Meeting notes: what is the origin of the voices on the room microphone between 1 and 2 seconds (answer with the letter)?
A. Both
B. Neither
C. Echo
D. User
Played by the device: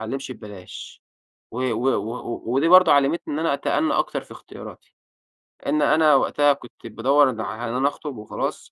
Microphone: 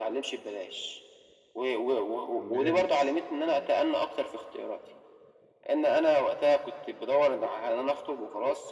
C